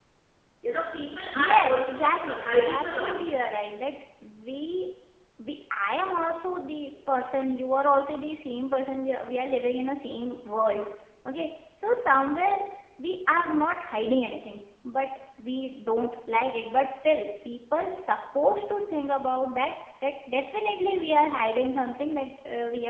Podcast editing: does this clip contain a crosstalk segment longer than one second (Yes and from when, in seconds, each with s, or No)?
Yes, from 1.3 s